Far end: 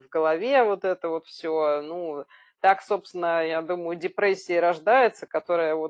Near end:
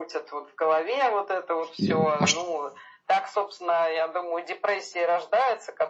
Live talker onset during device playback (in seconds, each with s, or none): 1.8 s